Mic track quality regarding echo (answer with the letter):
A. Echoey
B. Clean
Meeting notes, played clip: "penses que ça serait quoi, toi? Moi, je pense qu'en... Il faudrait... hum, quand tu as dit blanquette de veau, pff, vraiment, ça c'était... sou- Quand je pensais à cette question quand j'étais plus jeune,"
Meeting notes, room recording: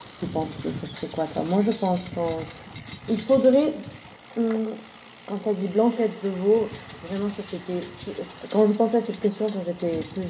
A